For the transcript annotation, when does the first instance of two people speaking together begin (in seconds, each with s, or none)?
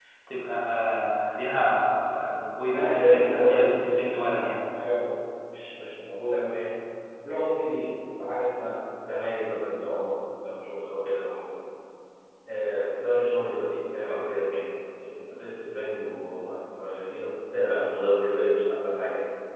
2.7 s